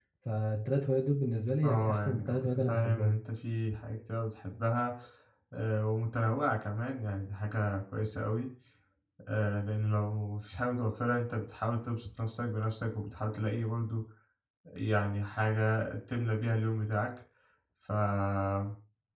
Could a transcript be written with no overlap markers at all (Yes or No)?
No